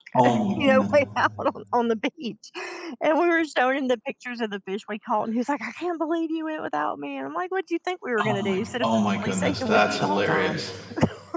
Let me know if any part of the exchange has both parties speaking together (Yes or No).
Yes